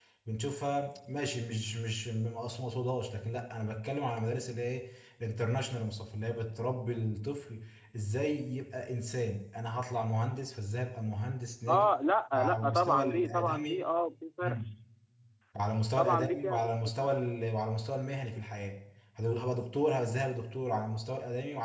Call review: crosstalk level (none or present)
present